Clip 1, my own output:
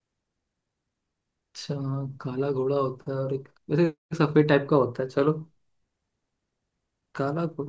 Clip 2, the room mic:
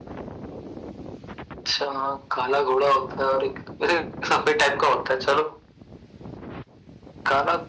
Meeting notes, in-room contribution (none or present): none